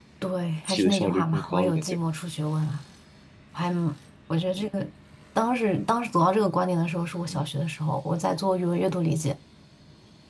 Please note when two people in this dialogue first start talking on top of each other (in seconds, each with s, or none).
0.7 s